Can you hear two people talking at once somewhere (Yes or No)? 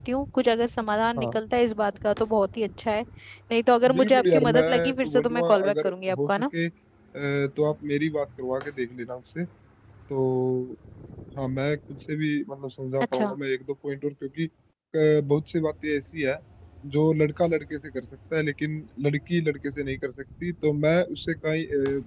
Yes